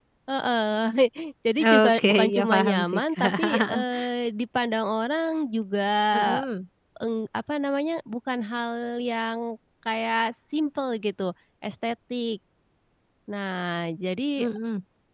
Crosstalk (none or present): present